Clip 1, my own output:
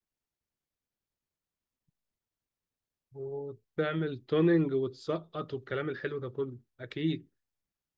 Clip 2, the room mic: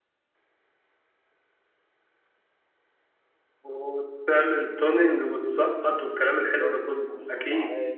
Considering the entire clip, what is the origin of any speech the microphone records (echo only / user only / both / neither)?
both